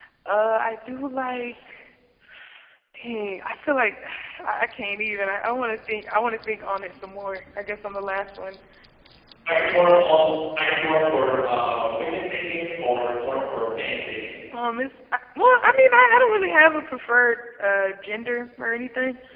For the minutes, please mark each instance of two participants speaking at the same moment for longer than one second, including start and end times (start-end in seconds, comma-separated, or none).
none